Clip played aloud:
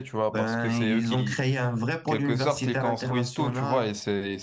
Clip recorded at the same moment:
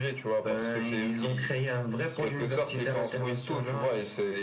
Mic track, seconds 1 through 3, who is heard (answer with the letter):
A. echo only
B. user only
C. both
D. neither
A